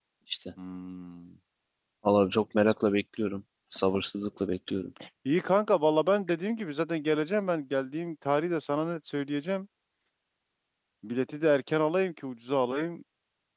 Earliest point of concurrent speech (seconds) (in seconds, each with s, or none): none